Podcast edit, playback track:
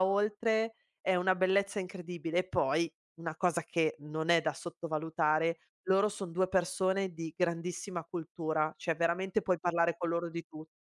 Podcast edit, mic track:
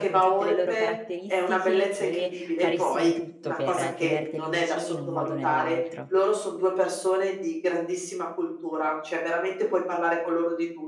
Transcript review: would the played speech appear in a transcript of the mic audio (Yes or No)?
Yes